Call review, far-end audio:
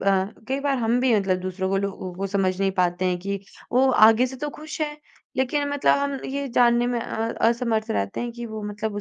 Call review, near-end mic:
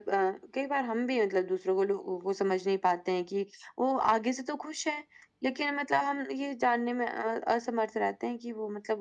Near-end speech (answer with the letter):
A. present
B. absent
B